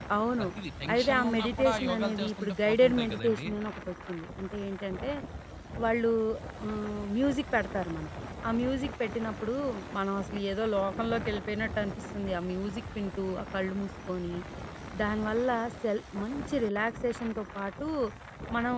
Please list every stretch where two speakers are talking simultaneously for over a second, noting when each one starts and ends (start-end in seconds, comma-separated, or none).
0.9-3.5